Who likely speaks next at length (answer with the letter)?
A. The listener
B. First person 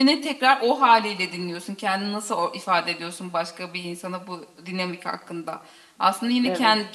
B